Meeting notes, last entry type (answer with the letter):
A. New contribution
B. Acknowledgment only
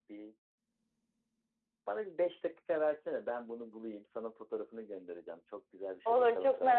A